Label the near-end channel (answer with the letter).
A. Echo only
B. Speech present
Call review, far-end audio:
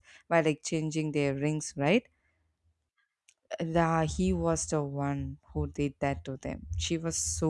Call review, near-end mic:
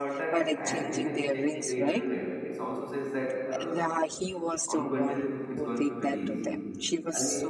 B